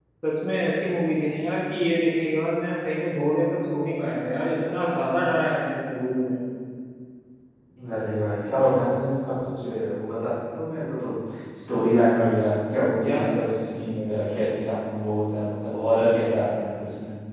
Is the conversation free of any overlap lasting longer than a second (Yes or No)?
Yes